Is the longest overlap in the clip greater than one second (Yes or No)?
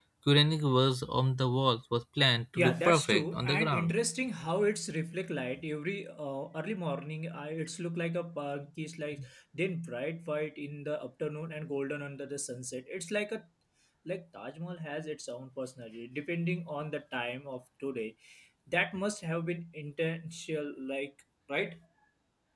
Yes